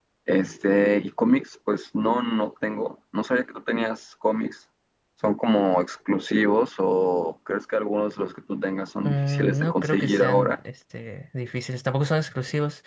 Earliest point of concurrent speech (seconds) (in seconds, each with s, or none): 9.0 s